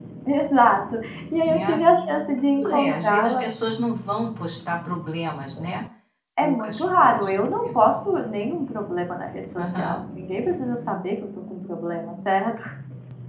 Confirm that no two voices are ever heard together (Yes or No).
No